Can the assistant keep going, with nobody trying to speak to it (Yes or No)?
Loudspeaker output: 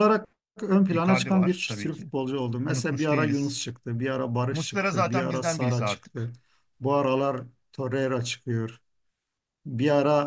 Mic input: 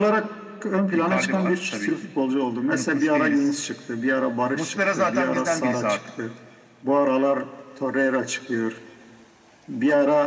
Yes